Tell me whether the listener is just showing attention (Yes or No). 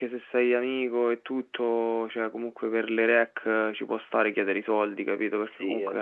No